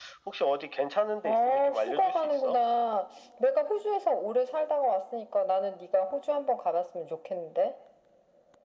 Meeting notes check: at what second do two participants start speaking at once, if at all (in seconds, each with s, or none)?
1.2 s